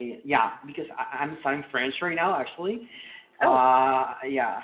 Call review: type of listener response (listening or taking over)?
listening